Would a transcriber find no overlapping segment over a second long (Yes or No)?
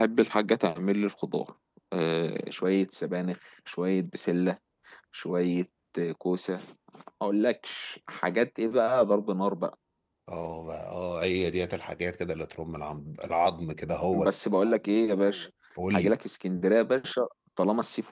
Yes